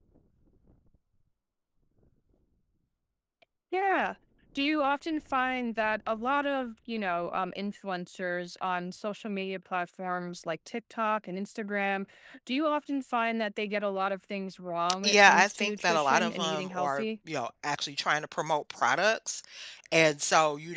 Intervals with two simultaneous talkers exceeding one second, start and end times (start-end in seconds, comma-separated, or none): 15.0-17.0